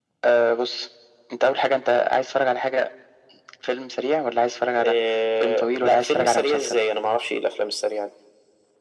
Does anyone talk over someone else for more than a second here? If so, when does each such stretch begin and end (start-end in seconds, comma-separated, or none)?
5.4-6.8